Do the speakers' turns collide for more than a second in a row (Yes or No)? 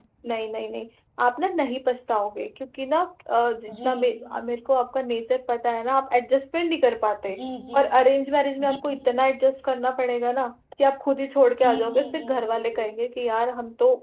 Yes